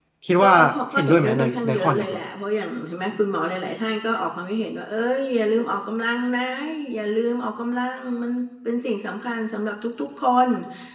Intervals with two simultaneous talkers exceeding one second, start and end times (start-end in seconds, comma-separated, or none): 1.0-2.2